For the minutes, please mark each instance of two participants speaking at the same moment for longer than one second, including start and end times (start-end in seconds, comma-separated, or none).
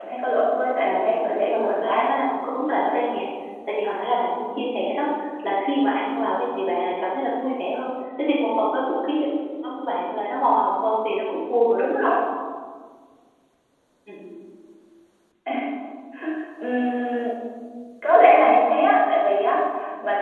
0.8-2.1